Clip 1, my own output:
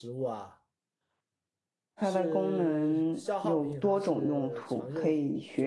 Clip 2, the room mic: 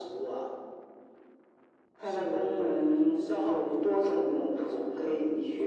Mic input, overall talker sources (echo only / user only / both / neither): echo only